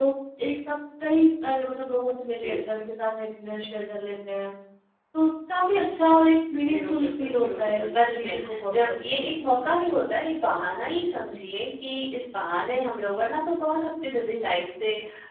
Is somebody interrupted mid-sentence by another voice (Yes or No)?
Yes